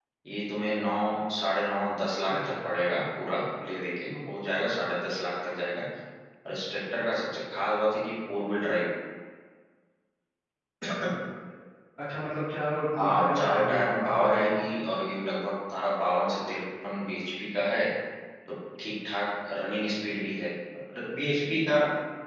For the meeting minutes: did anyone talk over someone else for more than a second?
Yes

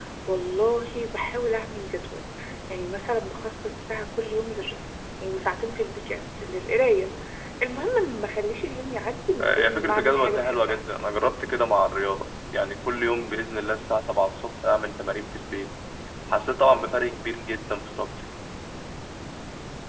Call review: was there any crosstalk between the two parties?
Yes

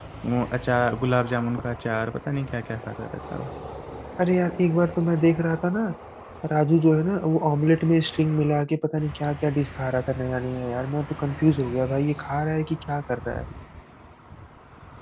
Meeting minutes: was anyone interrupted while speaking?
No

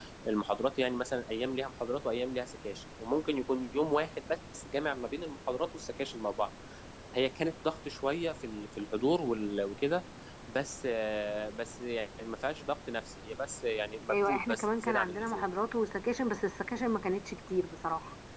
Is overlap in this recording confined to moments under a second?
No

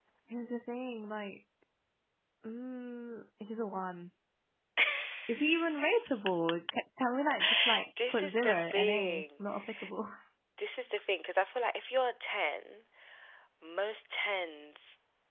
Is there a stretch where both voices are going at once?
Yes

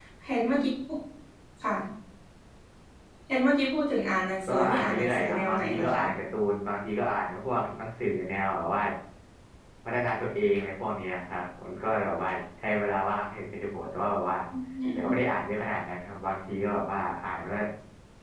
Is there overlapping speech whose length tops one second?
Yes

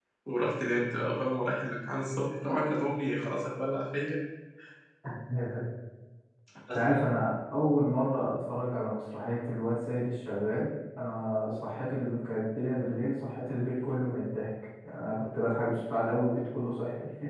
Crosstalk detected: No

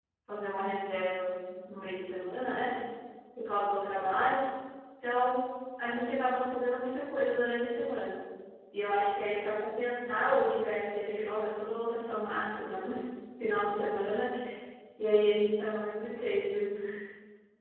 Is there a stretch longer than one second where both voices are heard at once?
No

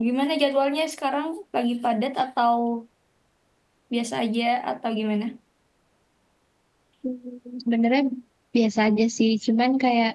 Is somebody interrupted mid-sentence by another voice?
No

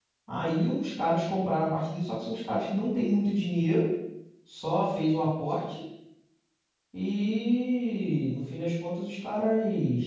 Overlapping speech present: No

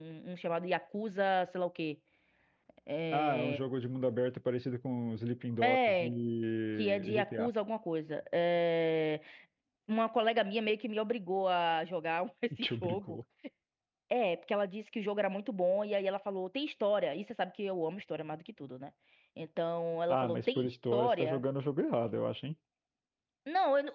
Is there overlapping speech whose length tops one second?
Yes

